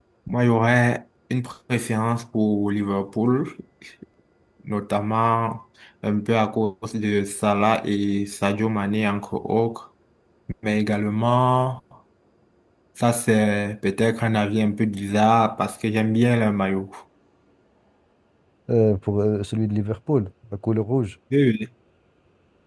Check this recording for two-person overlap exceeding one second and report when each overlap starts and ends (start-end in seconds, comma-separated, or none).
none